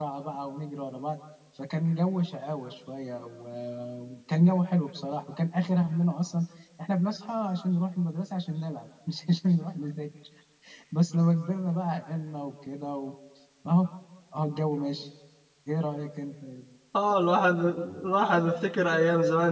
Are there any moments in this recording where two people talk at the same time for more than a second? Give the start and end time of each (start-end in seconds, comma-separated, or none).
none